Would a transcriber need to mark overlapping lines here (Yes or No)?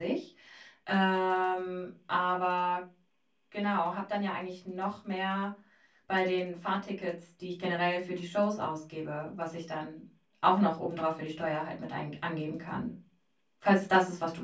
No